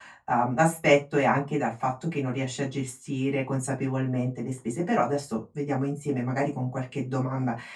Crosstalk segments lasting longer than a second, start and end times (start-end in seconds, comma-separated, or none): none